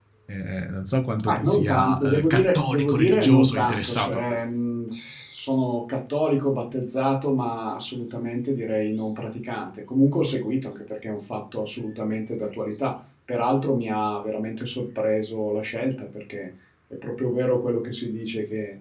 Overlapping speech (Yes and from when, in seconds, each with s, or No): Yes, from 1.3 s